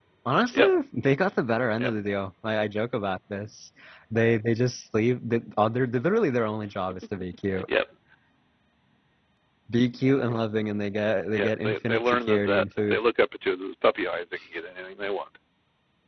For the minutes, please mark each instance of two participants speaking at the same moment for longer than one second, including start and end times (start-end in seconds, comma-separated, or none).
11.3-13.0